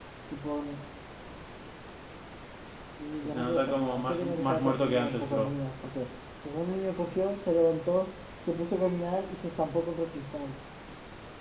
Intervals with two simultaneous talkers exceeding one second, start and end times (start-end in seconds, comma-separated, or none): 3.2-5.5